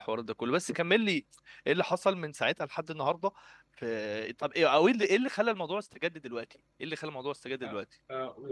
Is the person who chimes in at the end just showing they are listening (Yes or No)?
No